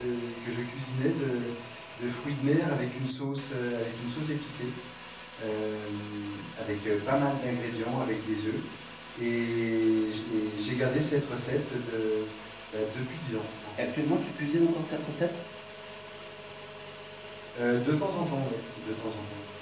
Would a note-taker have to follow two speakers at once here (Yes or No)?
No